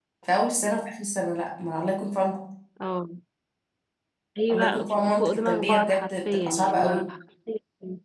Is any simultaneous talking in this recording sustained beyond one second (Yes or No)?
Yes